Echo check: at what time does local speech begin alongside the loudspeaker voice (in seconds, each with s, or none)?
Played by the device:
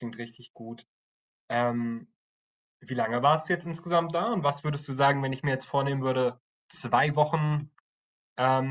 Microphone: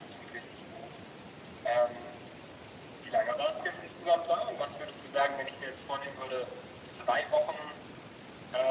none